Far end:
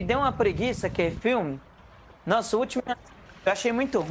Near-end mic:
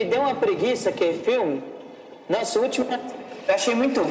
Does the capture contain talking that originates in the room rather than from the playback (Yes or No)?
No